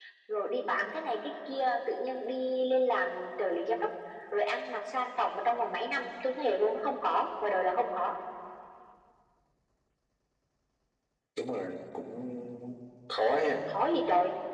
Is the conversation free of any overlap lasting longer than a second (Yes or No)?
Yes